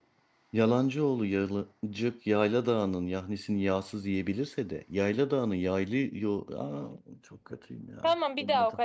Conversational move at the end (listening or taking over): taking over